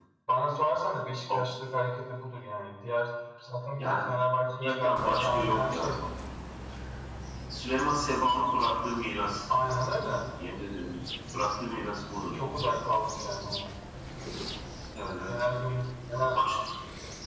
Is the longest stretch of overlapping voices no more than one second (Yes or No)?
No